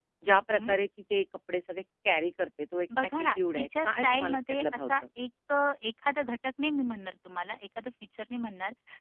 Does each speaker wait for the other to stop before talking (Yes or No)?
No